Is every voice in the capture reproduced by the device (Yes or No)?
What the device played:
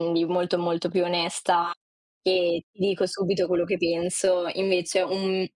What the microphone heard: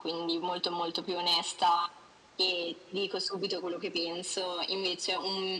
Yes